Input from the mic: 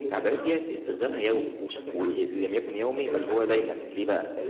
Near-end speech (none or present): present